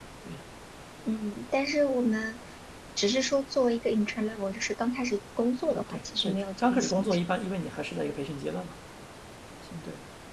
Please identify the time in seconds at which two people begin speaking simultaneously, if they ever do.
5.7 s

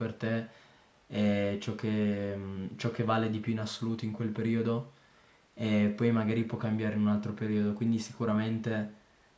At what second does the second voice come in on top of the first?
none

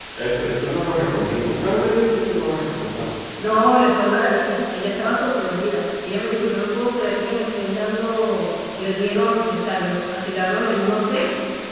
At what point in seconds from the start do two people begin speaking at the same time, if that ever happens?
none

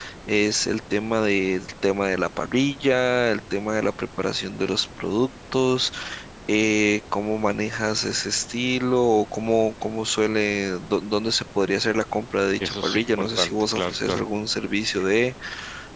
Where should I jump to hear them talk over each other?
12.6 s

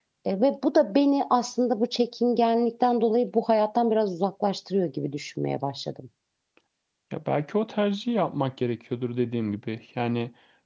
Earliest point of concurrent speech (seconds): none

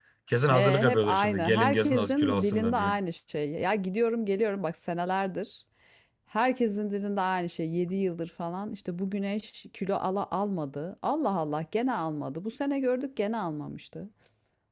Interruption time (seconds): 0.5 s

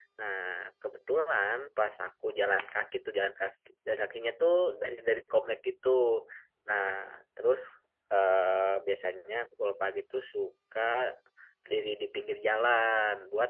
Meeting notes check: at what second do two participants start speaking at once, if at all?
none

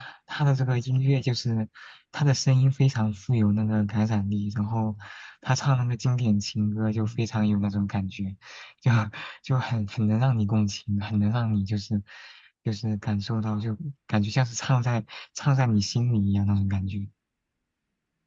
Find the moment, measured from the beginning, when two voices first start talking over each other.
none

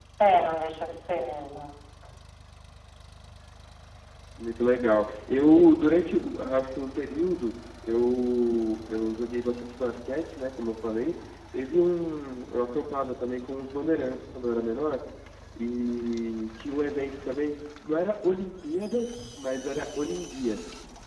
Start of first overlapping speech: none

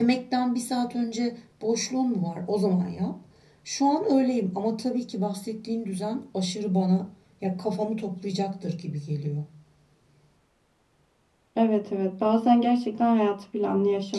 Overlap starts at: none

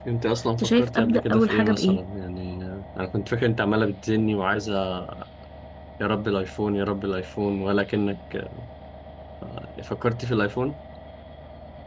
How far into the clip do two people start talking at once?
0.6 s

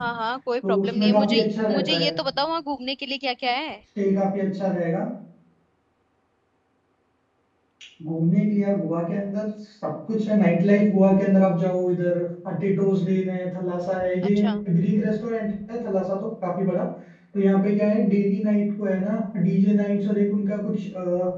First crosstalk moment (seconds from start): 0.7 s

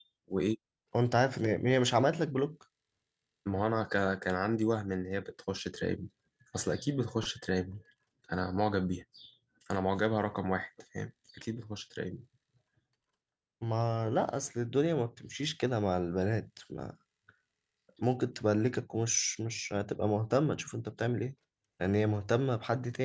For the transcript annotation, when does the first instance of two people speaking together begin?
none

